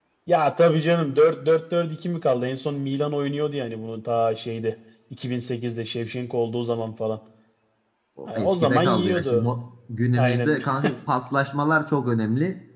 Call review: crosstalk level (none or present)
present